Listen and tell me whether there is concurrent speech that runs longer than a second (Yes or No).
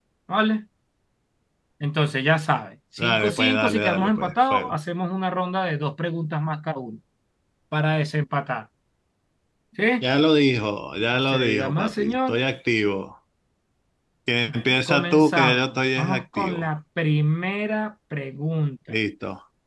Yes